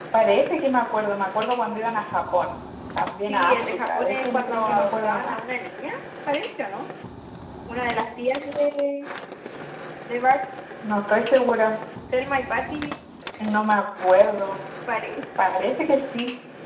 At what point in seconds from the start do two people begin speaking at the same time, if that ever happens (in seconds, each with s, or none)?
3.2 s